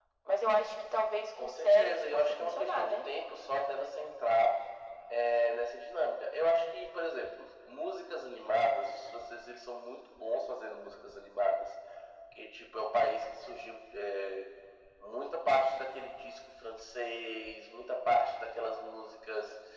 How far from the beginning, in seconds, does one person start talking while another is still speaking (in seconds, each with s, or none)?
1.4 s